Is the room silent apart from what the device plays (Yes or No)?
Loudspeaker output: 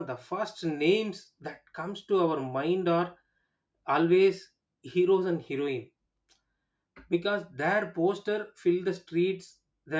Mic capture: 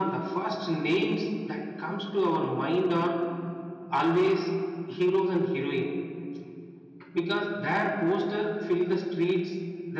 Yes